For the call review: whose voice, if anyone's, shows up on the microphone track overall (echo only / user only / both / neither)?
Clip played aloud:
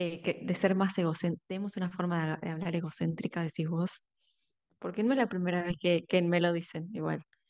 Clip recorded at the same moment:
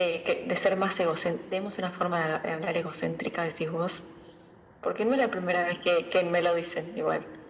echo only